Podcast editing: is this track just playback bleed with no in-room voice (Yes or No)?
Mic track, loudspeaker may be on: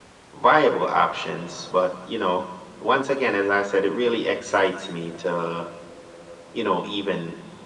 Yes